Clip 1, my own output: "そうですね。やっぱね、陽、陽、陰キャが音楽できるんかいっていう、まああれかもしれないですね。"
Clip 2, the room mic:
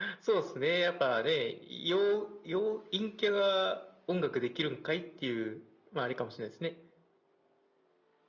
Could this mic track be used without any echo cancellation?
No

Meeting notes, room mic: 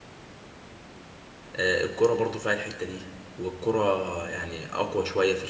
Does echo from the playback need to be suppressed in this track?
No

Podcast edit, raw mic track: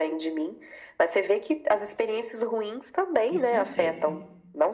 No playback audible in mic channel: No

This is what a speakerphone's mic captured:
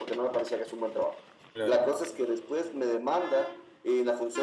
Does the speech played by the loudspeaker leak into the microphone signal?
Yes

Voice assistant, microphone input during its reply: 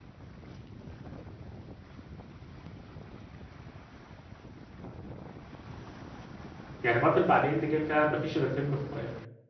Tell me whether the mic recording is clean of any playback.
Yes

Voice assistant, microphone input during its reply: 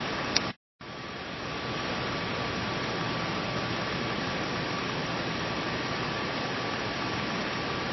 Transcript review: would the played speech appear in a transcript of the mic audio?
No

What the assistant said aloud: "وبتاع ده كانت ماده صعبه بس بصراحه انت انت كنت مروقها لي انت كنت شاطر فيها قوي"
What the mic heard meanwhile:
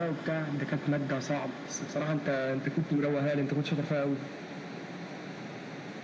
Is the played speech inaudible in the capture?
No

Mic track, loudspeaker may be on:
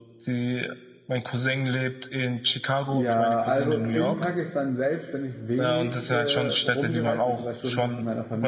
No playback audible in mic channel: No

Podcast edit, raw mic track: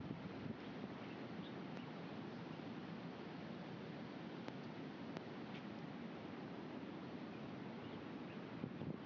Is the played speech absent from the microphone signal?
Yes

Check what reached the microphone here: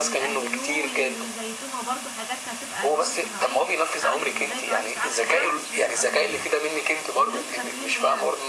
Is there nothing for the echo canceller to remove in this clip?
No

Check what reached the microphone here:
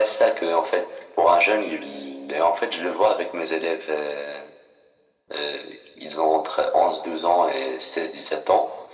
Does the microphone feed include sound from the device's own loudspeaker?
Yes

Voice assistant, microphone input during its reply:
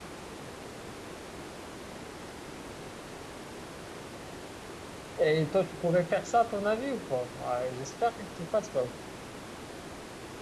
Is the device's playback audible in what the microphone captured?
No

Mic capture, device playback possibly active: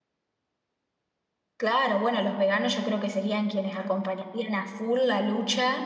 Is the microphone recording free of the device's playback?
Yes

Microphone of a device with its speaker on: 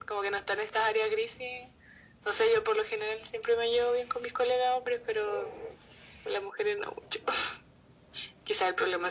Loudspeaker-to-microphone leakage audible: Yes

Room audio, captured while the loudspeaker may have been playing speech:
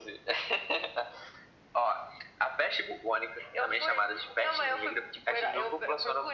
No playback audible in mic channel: No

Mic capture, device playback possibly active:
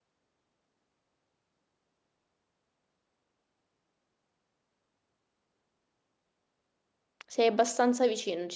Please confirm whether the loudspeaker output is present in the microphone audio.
No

